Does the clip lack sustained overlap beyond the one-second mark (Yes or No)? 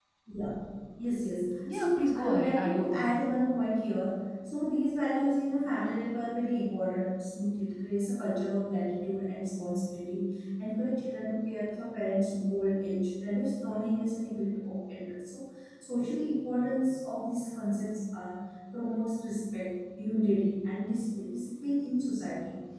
No